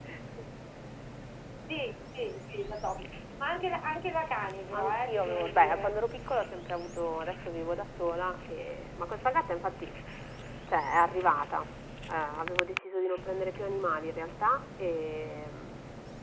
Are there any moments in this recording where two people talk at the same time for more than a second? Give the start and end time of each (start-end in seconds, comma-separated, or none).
4.7-6.0